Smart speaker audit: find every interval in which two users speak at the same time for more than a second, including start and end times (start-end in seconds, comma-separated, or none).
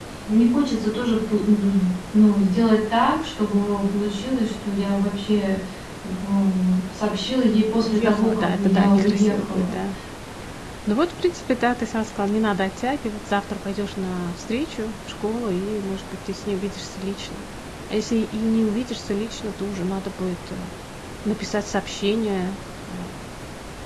7.8-9.7